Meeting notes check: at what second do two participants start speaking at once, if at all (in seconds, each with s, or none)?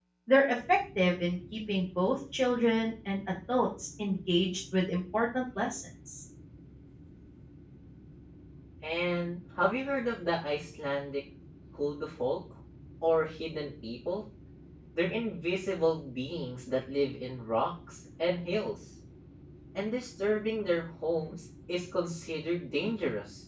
none